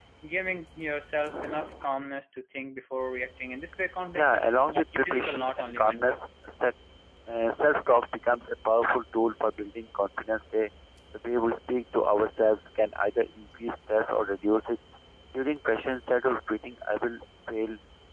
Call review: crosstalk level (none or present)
present